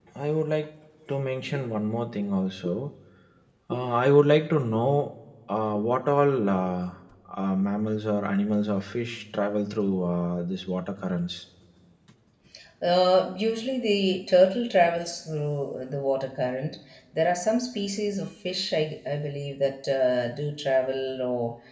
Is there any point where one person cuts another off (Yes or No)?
No